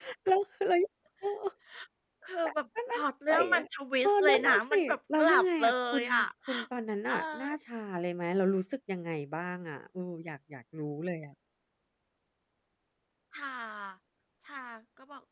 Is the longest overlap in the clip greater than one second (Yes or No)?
Yes